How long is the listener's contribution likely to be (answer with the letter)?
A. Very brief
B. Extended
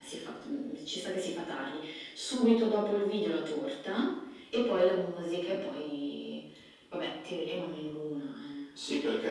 B